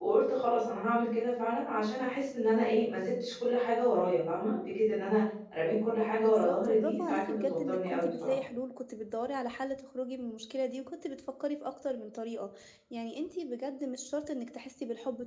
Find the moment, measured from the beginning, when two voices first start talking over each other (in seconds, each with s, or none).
6.1 s